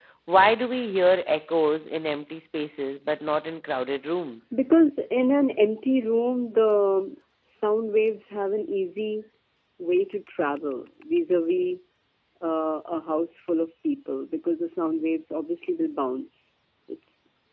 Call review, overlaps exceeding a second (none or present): none